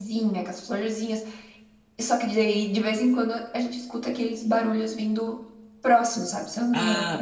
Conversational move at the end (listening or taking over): taking over